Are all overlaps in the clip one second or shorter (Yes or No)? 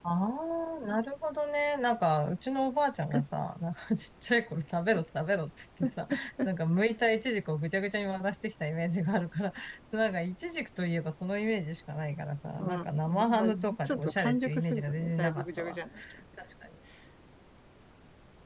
No